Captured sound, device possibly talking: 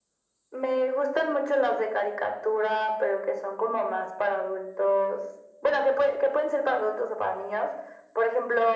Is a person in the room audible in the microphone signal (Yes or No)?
No